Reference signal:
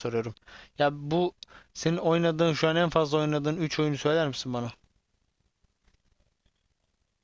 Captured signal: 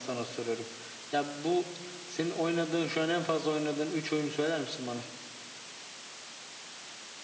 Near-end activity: none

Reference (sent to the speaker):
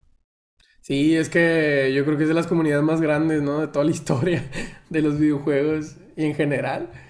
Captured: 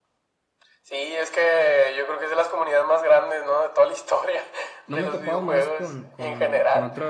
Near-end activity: present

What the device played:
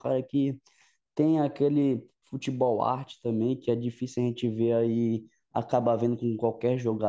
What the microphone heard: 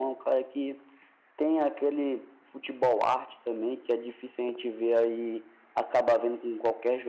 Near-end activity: none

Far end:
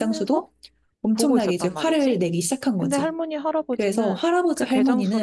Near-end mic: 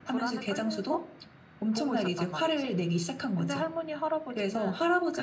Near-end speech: none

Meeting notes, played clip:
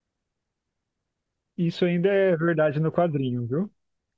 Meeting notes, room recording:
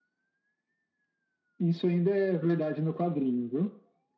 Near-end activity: none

